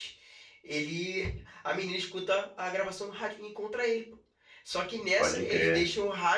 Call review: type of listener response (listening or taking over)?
listening